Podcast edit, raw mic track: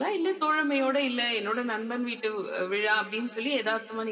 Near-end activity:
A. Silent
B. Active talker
A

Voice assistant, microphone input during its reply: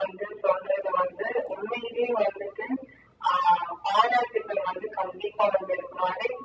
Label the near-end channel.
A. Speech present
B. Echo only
B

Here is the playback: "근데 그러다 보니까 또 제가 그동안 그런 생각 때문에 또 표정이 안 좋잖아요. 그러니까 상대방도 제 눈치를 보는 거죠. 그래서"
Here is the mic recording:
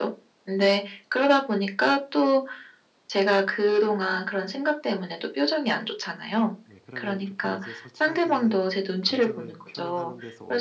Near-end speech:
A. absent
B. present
B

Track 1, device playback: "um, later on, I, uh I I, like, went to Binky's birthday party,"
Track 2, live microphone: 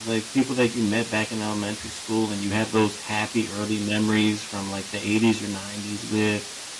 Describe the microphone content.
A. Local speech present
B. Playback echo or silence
A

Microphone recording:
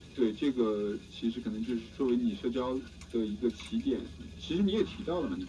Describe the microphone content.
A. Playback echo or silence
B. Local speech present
A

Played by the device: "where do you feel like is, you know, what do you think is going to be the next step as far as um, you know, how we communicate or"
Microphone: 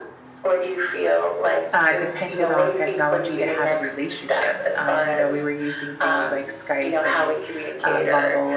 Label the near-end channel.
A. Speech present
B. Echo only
A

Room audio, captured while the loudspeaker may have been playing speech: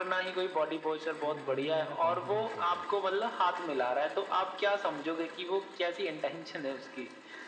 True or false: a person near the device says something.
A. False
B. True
B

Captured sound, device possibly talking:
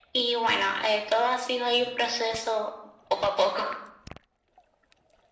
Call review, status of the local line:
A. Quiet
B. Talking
A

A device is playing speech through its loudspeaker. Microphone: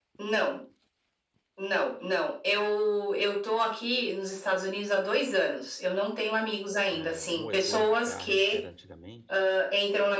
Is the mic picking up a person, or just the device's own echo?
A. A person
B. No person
A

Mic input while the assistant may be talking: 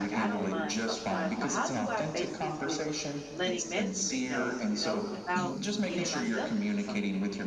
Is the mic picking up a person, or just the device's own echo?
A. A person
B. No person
A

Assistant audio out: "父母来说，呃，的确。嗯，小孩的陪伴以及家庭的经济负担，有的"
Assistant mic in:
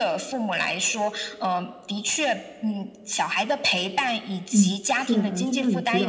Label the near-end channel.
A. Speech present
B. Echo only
A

